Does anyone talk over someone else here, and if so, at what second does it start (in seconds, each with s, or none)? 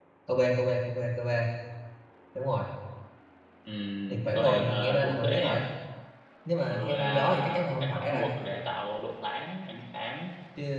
4.1 s